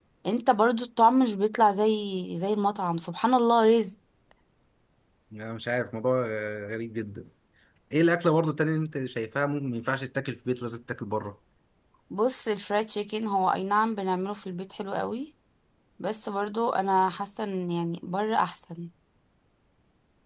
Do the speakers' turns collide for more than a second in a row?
No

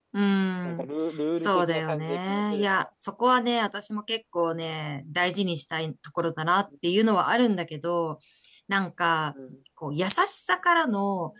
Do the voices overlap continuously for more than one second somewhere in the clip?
Yes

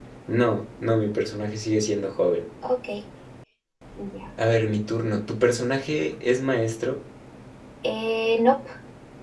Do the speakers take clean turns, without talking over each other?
Yes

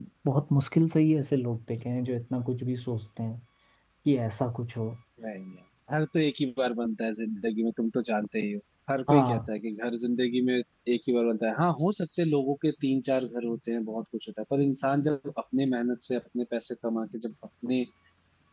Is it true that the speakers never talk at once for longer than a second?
Yes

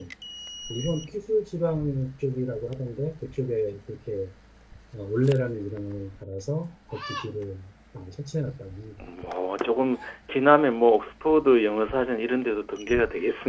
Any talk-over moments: No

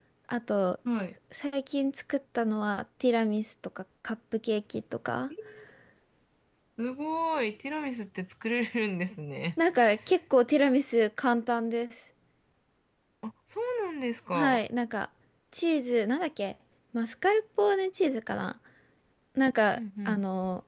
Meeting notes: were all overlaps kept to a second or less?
Yes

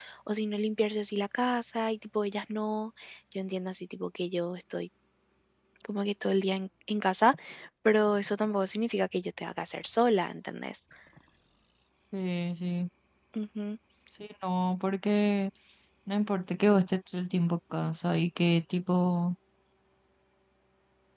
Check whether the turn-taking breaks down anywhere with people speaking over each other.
No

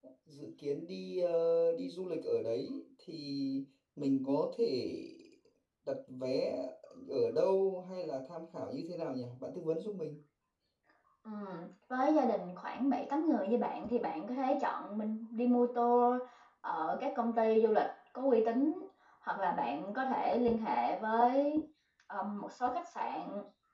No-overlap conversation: Yes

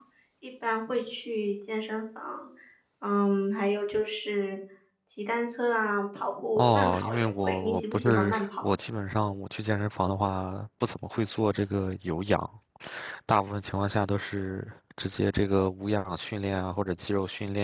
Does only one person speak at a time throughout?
No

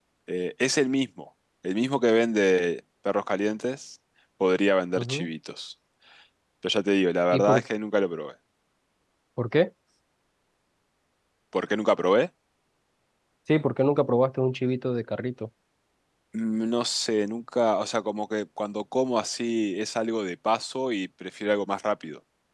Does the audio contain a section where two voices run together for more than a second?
No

